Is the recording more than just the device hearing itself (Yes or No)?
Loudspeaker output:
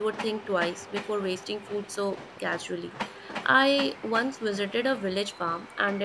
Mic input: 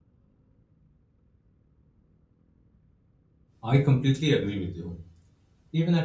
Yes